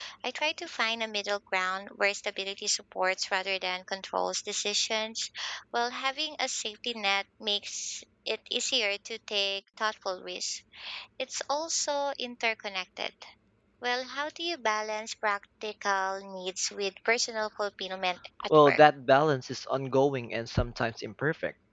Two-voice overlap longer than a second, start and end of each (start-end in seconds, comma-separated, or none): none